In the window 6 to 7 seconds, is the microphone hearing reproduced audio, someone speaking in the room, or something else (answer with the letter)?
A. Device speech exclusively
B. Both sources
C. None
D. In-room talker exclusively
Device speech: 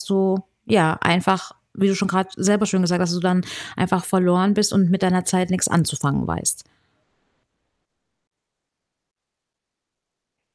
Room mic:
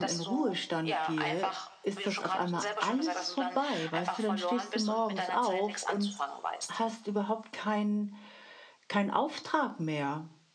B